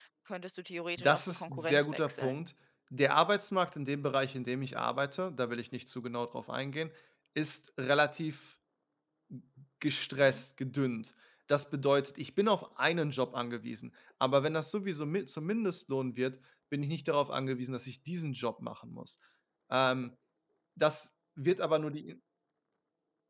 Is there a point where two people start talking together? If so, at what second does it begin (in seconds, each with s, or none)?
1.0 s